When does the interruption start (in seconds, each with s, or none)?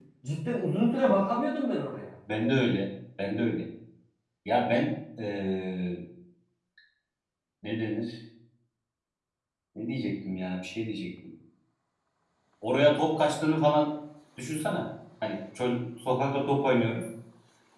none